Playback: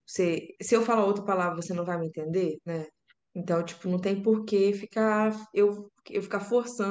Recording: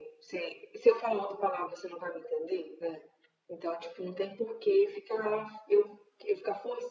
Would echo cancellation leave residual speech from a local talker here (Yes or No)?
No